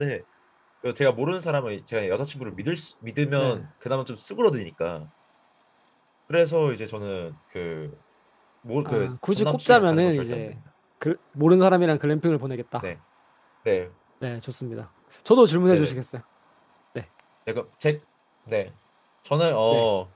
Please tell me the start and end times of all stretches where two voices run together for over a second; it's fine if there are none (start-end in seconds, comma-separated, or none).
8.8-10.6